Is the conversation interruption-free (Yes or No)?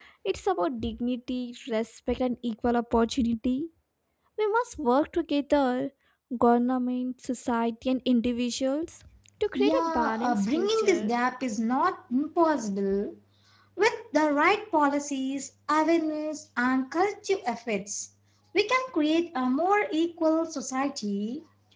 No